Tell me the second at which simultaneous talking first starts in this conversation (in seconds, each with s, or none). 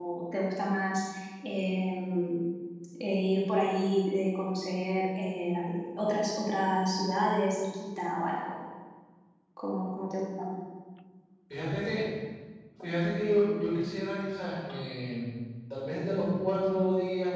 none